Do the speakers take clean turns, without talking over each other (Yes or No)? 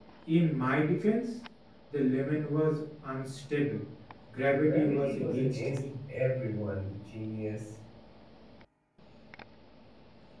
No